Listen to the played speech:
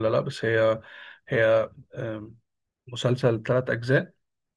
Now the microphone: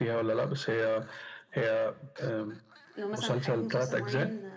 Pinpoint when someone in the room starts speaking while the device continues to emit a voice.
3.0 s

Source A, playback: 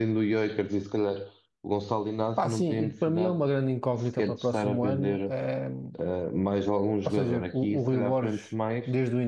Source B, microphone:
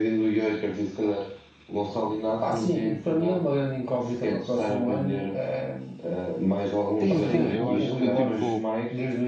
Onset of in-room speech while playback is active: 7.0 s

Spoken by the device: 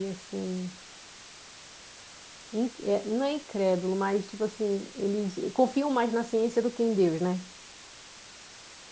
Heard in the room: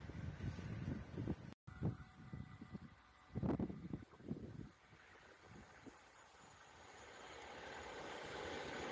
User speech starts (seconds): none

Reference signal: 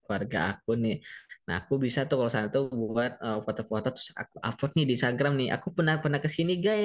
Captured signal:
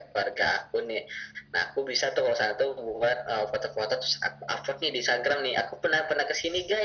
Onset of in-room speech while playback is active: none

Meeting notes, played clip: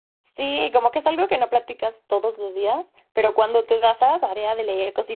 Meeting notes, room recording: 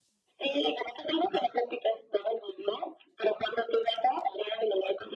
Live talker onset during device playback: none

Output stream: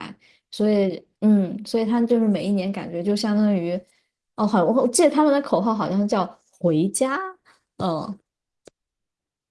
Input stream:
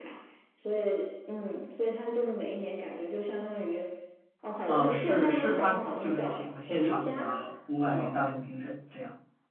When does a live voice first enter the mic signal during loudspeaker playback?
4.6 s

